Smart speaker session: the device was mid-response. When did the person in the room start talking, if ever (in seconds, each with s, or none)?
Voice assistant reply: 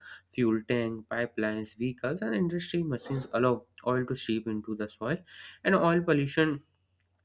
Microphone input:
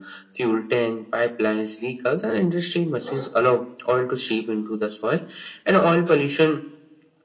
none